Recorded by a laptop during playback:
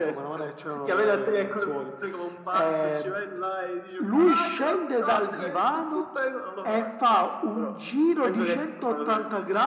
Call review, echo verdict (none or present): present